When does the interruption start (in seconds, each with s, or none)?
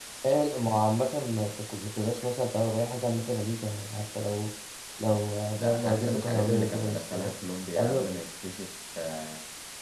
5.5 s